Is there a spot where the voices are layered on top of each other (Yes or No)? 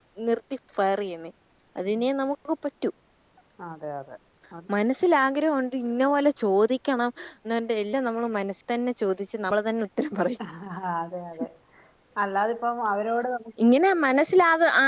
No